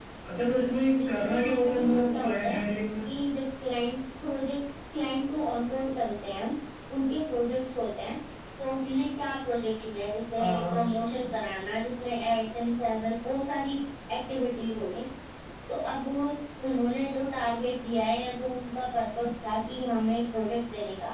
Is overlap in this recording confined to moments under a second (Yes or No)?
No